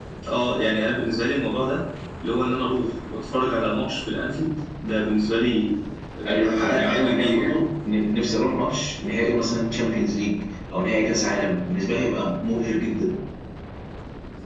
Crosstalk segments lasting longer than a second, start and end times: 6.2-7.5

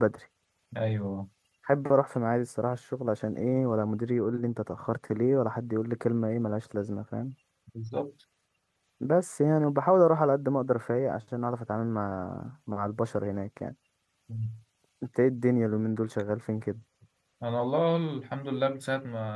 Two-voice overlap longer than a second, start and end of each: none

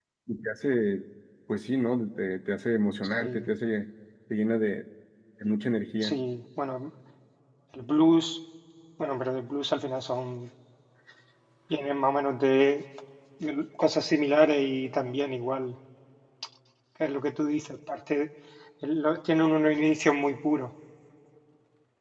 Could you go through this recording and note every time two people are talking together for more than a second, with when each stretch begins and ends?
none

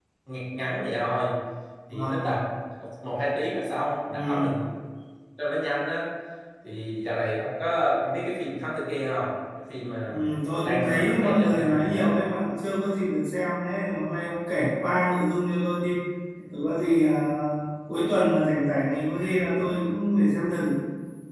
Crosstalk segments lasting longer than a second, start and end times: 10.6-12.1

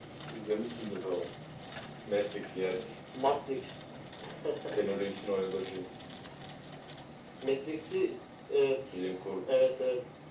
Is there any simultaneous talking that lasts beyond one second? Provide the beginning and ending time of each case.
none

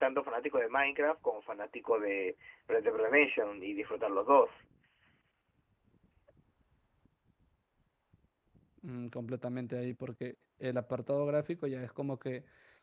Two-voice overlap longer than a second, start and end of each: none

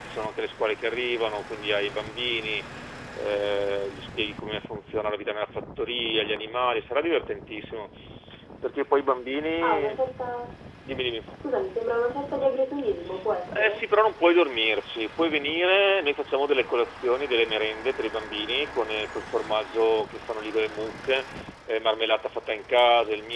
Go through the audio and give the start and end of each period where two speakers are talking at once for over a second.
none

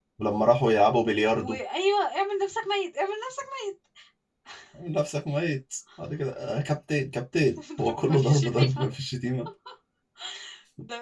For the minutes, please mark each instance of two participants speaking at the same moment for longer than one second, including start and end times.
7.6-8.8

